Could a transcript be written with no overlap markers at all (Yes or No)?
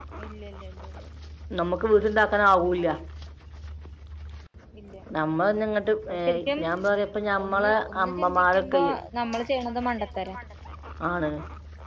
No